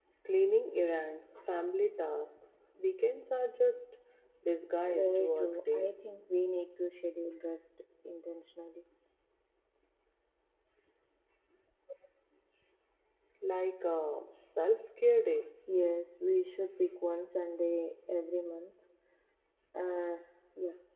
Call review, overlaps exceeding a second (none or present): present